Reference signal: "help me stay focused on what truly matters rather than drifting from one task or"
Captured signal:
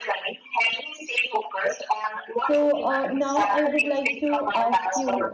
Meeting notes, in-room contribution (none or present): present